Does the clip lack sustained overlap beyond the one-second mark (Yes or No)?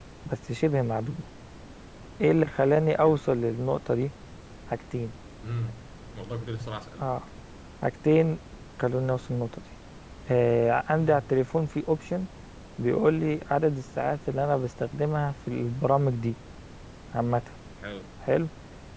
Yes